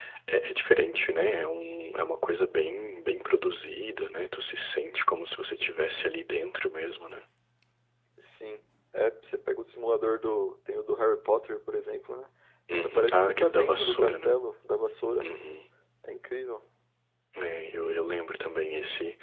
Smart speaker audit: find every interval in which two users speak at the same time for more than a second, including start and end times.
12.8-14.4

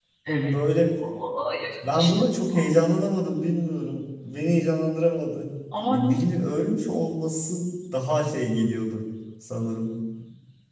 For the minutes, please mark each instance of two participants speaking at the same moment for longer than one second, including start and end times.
none

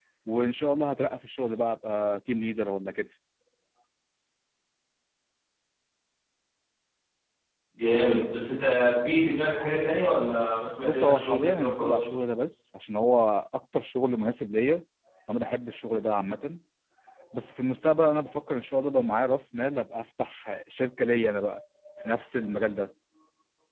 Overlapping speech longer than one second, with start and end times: 10.8-12.1

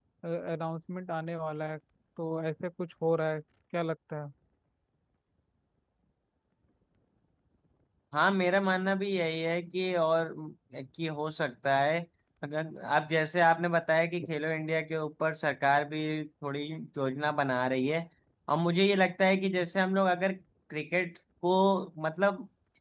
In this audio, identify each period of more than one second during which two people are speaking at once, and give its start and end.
none

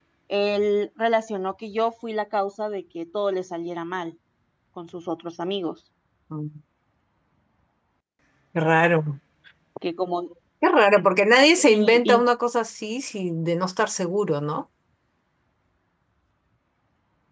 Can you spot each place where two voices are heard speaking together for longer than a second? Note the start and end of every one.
none

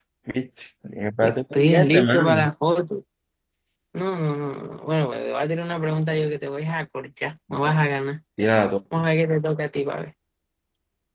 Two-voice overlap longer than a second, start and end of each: 1.2-2.5

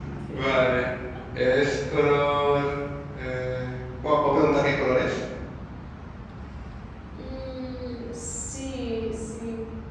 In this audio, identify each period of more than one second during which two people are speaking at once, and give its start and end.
none

